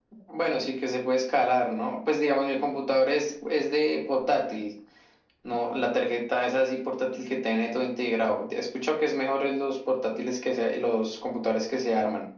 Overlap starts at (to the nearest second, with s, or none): none